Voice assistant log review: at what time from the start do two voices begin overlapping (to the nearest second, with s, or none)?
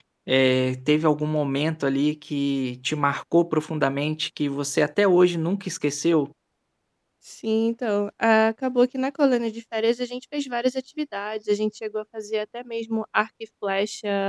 none